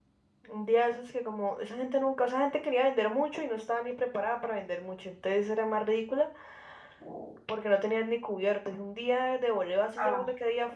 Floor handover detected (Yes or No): No